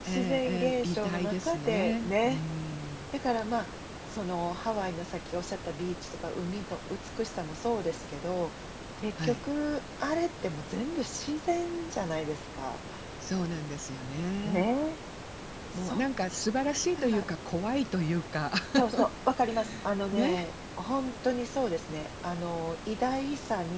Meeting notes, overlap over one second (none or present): present